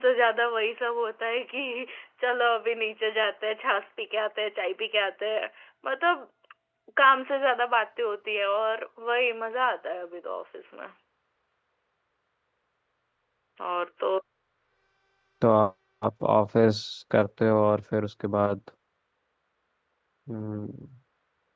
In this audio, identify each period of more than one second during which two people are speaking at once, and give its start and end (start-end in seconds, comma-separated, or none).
none